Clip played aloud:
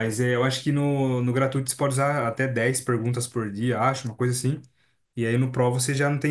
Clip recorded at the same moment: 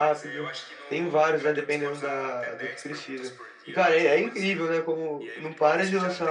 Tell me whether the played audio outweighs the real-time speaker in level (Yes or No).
No